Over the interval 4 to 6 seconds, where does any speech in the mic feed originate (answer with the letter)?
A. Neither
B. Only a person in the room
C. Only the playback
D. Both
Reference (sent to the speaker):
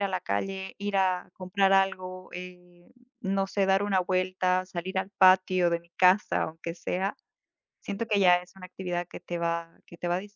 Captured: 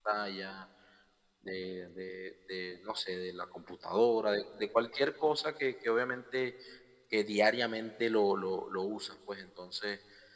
B